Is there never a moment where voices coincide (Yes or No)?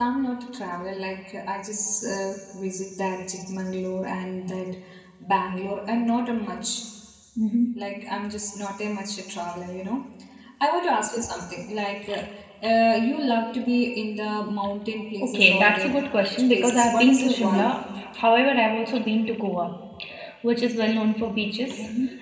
No